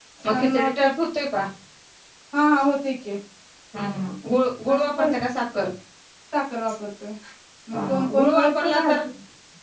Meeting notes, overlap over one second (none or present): present